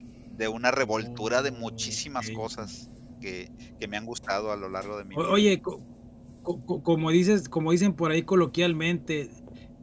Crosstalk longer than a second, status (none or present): present